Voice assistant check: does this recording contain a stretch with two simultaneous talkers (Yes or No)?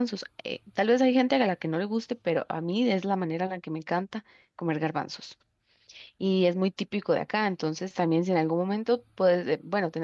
No